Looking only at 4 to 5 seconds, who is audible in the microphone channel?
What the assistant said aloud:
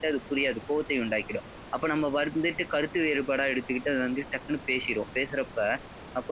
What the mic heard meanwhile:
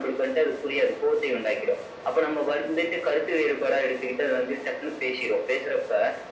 echo only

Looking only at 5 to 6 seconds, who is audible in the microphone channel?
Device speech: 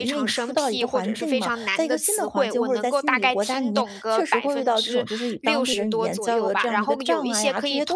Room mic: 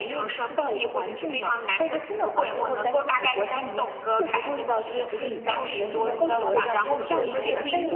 both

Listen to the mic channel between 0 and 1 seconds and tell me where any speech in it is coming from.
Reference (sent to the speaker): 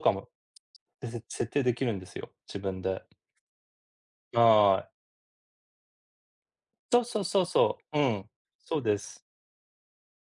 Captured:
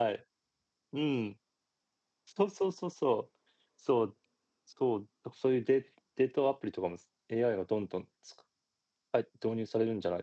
user only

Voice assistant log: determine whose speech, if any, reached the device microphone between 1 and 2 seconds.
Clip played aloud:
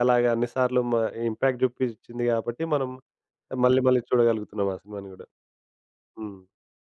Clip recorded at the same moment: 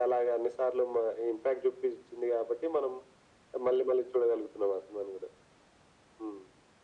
echo only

